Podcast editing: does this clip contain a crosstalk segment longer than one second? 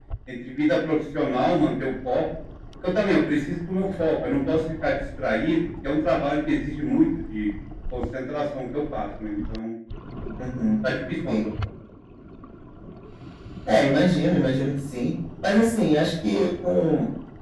No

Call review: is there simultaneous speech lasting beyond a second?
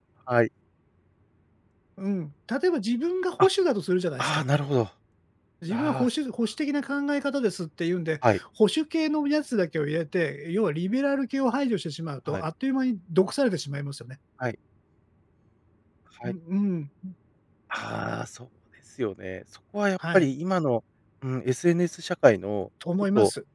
No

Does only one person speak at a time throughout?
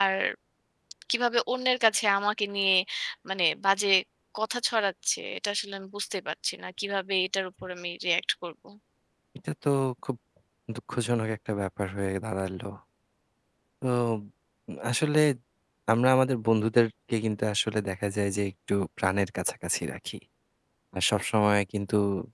Yes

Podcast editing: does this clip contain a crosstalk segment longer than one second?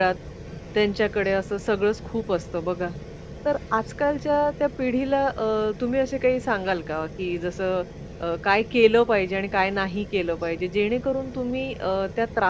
No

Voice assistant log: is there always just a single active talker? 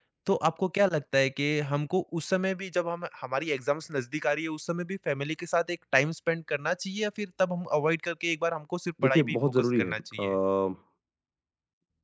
No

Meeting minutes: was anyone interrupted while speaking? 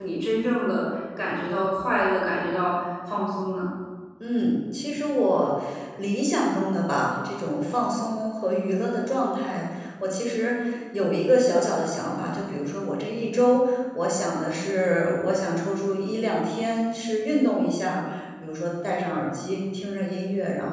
No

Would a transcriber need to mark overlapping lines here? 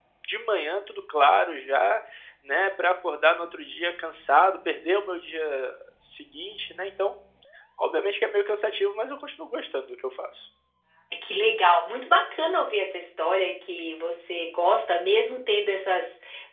No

